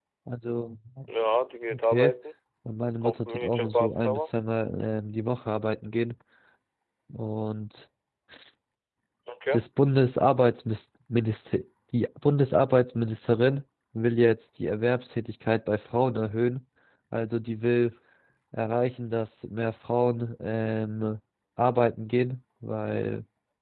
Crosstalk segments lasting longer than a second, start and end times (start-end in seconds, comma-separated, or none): 3.0-4.3